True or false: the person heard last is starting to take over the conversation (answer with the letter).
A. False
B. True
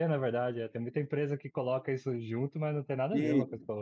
B